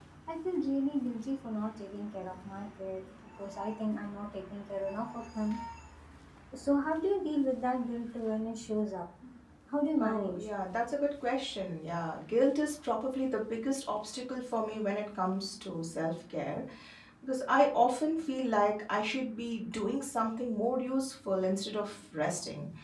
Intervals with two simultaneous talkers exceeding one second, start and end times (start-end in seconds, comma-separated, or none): none